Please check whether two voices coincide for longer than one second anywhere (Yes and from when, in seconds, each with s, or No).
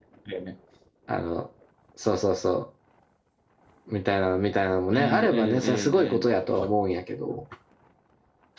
Yes, from 4.9 s